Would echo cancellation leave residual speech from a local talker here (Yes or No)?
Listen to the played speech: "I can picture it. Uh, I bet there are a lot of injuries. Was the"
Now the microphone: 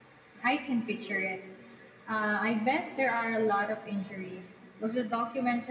No